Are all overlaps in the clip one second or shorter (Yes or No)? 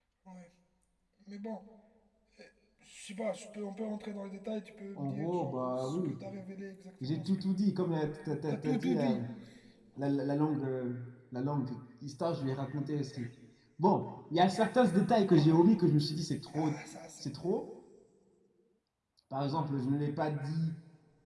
No